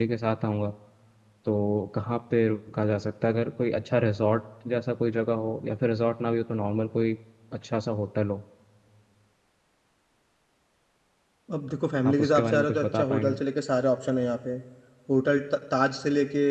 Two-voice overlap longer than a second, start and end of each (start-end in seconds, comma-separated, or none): 12.1-13.4